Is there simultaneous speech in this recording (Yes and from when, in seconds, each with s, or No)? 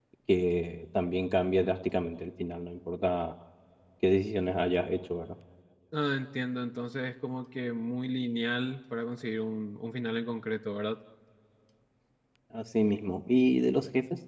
No